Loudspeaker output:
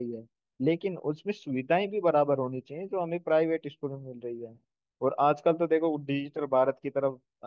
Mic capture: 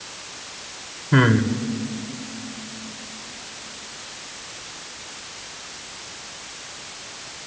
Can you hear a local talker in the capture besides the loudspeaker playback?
Yes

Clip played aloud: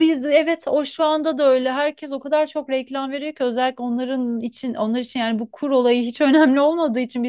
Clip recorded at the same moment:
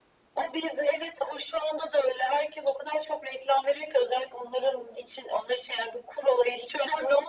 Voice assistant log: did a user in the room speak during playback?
No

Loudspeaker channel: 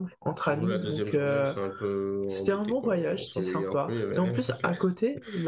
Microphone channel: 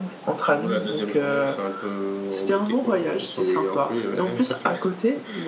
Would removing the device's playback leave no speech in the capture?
Yes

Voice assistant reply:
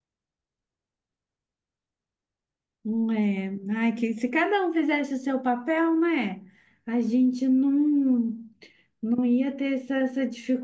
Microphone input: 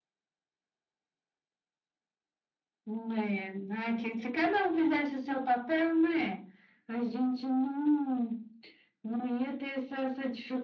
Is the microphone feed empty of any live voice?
Yes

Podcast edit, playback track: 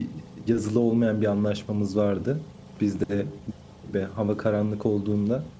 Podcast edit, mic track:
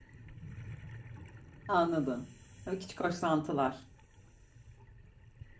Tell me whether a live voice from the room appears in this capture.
Yes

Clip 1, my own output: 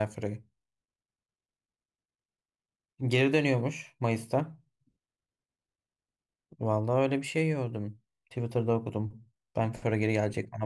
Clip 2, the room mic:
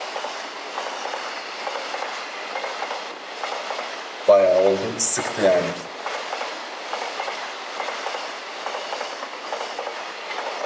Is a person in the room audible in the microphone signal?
Yes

